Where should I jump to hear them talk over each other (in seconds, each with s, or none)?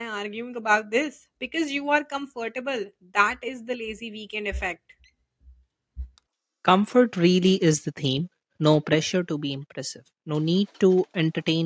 none